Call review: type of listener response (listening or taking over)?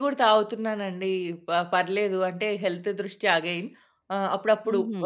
listening